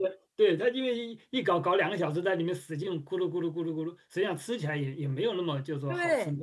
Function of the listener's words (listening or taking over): taking over